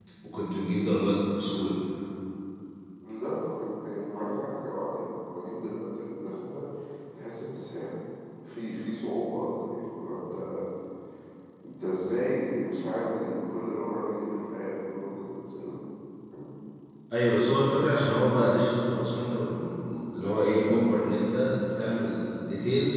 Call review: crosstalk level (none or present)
none